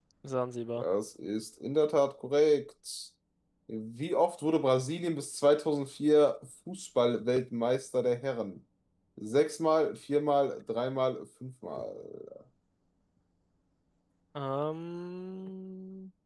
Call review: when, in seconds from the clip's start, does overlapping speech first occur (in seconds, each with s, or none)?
none